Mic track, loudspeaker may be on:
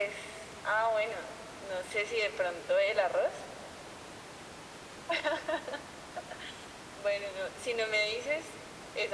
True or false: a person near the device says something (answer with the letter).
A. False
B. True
A